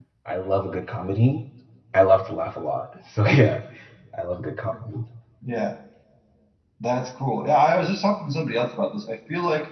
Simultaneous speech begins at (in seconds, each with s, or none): none